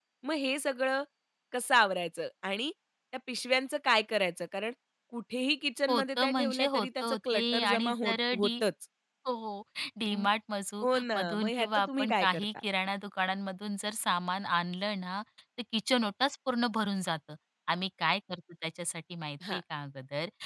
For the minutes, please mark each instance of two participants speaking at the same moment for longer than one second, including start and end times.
5.9-8.5, 10.8-12.4

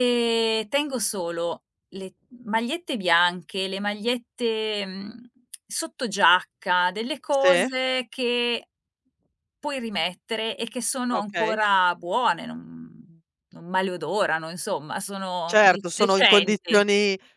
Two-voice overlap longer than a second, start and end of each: 15.5-16.8

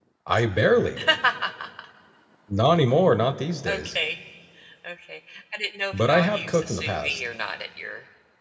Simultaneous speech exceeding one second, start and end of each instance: 5.9-7.2

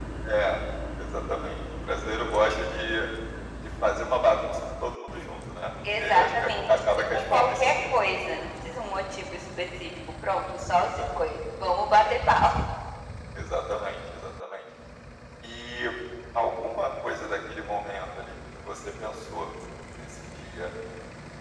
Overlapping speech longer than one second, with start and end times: 6.0-7.9

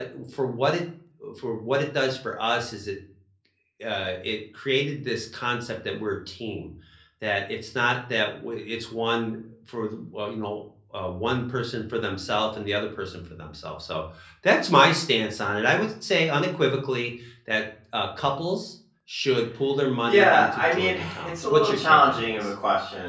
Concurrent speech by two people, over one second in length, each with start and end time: 20.1-22.5

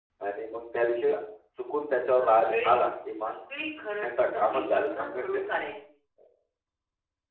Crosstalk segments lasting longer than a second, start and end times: 4.0-5.4

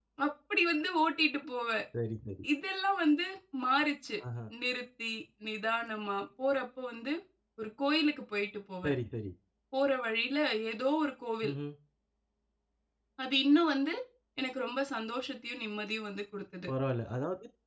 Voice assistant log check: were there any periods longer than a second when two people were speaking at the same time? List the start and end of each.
none

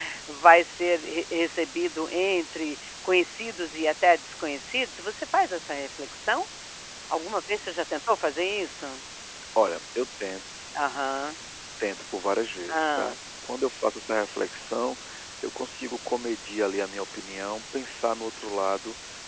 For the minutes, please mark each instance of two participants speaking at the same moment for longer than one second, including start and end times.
none

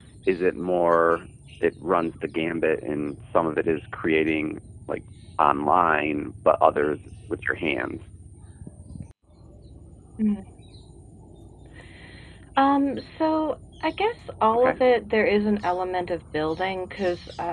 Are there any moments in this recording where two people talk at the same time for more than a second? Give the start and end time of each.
none

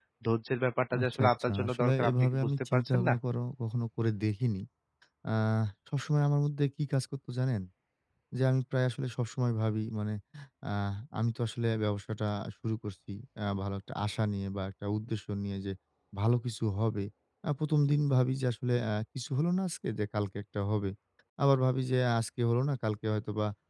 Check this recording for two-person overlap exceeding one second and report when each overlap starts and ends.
1.0-3.1

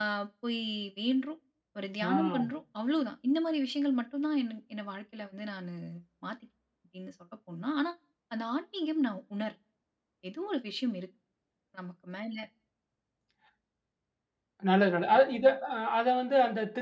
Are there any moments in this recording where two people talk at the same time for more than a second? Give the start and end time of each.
none

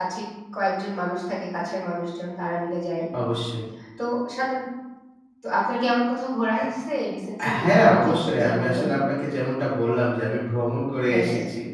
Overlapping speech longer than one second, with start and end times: 7.6-9.0

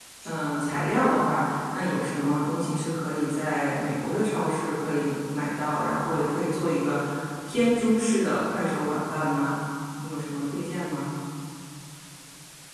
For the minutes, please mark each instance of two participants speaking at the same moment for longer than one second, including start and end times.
none

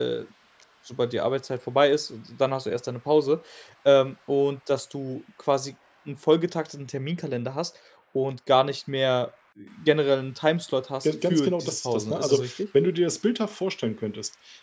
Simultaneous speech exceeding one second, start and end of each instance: 11.0-12.5

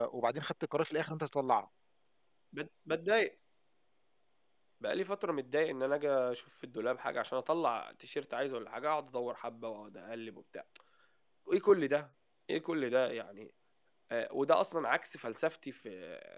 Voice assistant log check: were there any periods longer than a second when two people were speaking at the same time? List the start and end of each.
none

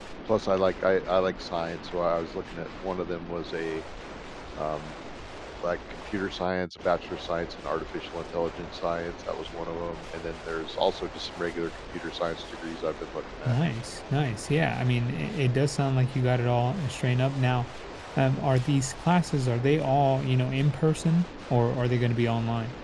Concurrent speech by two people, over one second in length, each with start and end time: none

